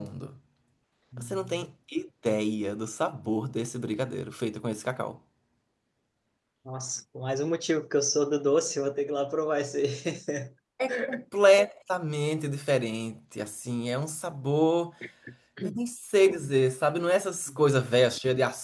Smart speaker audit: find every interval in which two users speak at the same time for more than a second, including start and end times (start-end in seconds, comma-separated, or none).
none